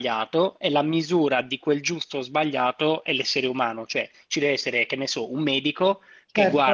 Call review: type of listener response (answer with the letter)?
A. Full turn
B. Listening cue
B